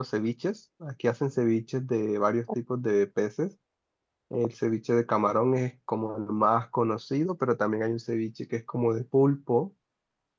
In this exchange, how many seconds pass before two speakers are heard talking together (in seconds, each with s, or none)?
none